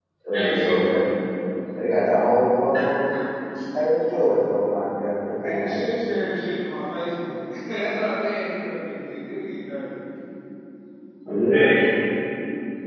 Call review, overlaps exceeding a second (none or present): none